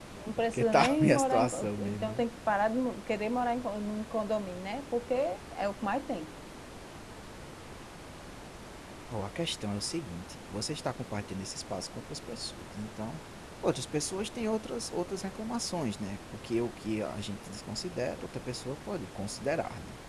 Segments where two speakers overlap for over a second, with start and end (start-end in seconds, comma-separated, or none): 0.5-2.2